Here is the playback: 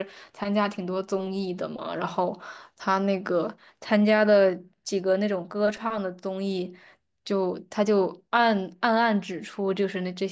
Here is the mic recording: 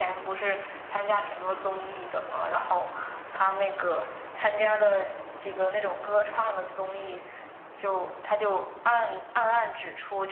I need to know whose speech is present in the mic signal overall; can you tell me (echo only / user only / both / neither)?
echo only